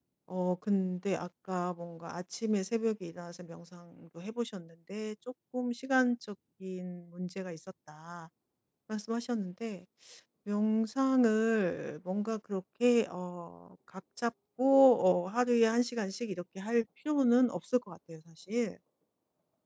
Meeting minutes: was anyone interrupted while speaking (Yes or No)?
No